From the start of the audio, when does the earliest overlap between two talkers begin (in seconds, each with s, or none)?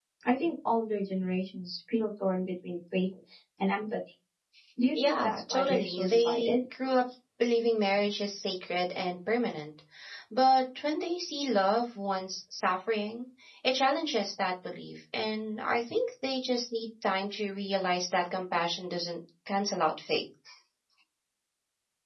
4.9 s